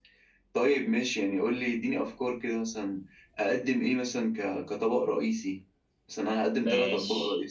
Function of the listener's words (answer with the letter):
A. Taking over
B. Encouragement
A